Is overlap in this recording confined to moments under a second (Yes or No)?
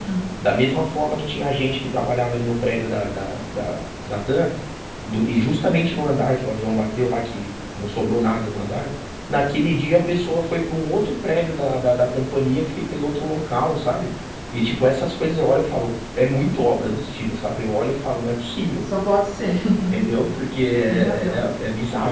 Yes